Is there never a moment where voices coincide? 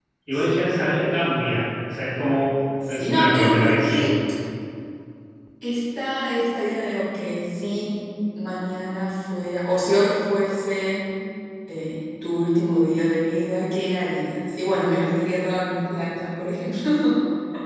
No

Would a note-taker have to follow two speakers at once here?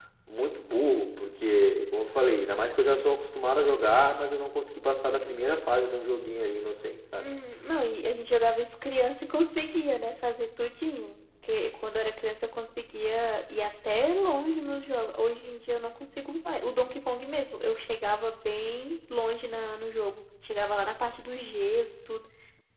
No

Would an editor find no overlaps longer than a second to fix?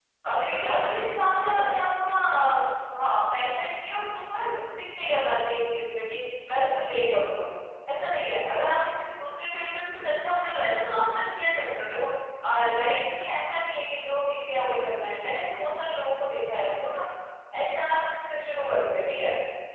No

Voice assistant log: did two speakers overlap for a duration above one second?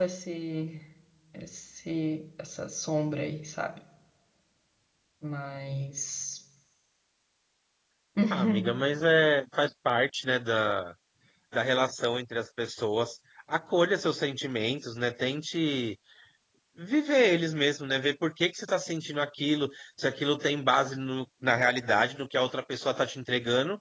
No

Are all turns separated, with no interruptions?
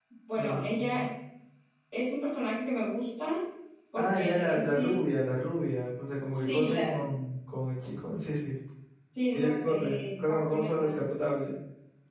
No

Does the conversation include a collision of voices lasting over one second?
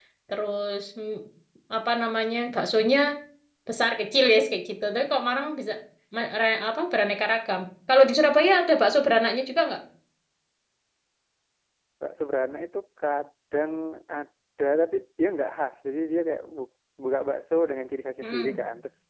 No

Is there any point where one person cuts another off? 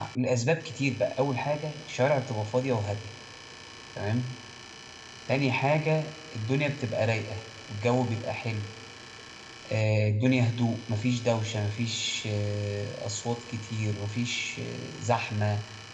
No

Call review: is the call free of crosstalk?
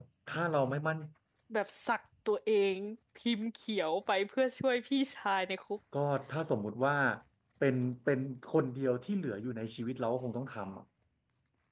Yes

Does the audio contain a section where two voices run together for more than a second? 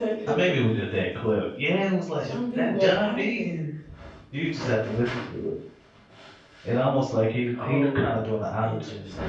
Yes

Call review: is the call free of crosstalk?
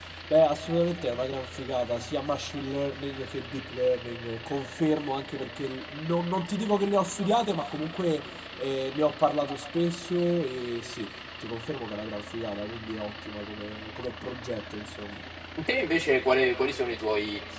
Yes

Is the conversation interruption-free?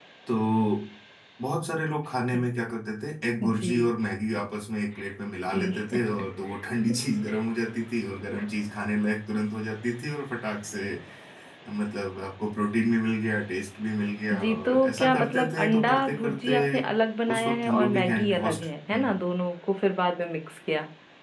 No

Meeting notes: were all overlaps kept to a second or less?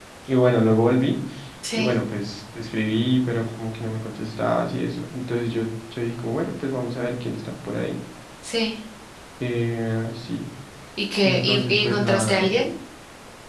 No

